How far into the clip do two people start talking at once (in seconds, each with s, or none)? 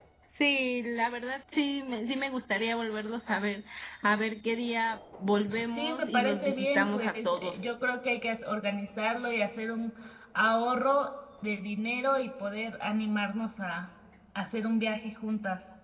5.5 s